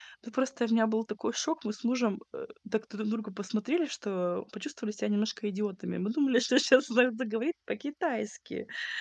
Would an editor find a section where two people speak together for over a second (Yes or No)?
No